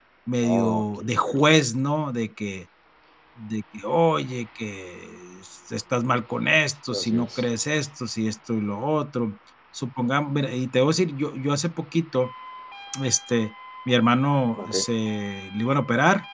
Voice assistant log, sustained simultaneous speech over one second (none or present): present